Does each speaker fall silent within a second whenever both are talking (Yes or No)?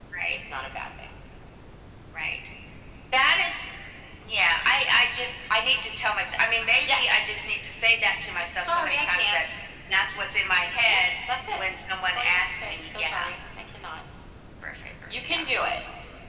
No